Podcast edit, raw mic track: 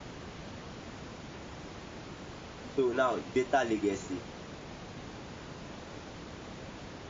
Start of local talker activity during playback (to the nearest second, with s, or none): 3 s